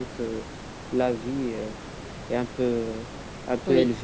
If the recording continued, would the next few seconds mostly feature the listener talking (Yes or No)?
No